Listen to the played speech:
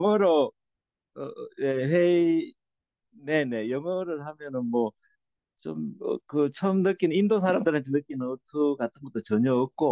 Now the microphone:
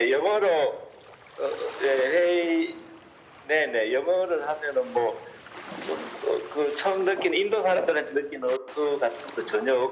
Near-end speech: none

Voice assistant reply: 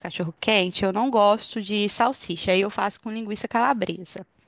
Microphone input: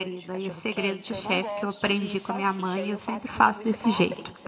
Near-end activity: present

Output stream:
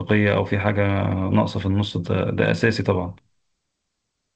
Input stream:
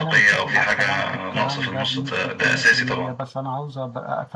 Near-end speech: present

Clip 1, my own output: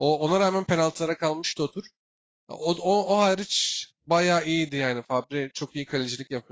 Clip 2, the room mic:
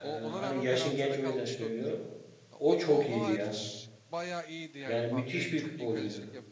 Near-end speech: present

